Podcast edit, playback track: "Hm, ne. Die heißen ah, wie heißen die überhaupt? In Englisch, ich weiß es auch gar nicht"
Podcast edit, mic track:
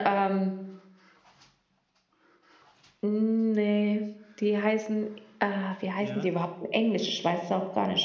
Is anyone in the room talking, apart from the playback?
Yes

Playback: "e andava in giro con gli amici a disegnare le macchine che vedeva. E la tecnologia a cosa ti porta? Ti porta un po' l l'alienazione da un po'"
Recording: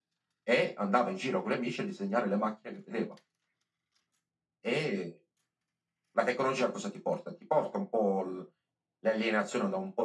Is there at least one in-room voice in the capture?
No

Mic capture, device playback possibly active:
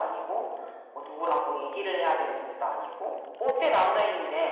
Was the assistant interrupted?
No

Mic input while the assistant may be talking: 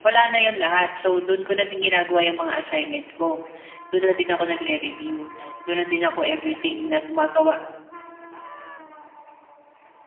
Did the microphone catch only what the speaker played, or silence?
No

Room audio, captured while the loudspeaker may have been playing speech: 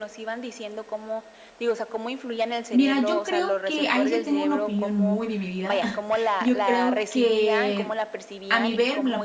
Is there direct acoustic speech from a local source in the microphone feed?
Yes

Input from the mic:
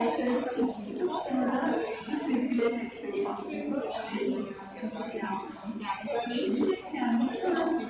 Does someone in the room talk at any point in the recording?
No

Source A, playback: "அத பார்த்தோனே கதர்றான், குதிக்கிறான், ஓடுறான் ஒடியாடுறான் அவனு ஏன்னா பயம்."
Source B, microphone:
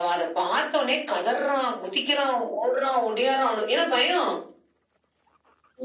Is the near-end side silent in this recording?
Yes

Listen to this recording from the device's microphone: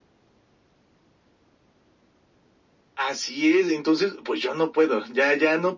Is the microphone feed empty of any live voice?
Yes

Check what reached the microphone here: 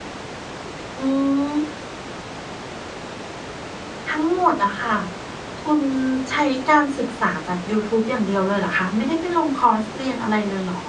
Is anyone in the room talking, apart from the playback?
Yes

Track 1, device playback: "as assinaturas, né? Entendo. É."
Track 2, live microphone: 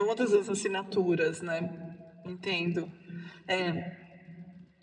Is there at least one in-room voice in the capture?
No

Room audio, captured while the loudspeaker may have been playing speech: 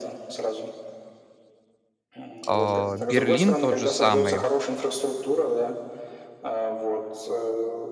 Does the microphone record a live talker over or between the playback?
Yes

